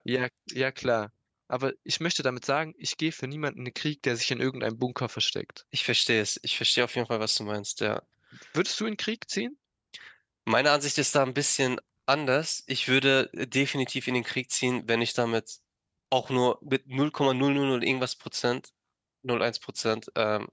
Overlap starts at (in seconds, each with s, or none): none